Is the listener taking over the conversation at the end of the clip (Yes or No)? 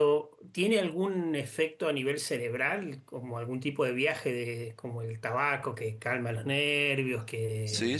Yes